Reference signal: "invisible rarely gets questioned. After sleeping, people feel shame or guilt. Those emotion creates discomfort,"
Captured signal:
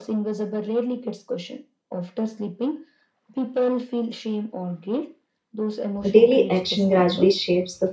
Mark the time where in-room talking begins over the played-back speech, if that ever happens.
6.1 s

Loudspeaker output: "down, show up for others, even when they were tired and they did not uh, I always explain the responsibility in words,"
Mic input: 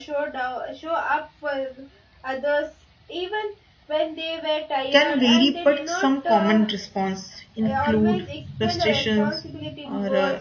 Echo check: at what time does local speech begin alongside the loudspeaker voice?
4.9 s

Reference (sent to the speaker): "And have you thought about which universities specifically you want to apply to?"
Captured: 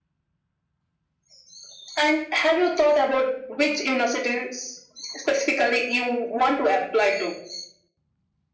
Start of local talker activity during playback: none

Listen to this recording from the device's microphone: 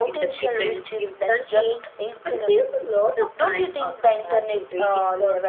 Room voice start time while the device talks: none

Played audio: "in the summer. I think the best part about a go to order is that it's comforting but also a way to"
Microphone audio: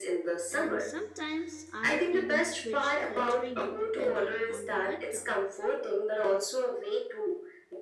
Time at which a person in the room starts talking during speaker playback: 0.5 s

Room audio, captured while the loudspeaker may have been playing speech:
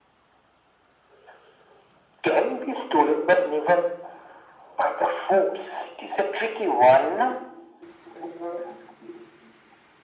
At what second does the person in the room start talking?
none

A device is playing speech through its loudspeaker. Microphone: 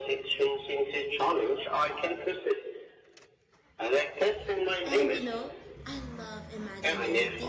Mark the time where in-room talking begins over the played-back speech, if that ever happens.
4.8 s

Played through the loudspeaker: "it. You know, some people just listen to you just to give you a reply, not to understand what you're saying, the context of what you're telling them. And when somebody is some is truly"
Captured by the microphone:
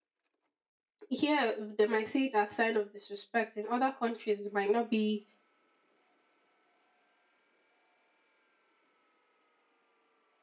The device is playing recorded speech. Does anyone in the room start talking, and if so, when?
1.1 s

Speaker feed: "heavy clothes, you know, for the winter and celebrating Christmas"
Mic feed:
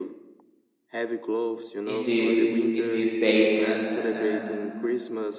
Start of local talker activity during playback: 1.8 s

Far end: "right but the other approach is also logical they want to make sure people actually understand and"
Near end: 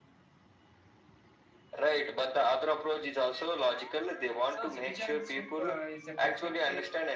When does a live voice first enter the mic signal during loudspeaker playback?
4.5 s

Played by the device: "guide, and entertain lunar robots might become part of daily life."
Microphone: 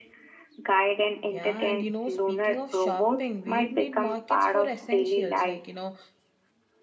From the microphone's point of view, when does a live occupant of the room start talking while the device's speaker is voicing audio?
1.2 s

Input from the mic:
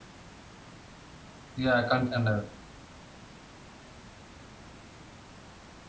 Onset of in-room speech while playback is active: 1.6 s

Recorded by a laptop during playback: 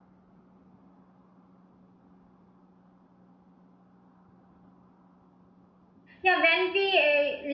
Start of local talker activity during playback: 6.2 s

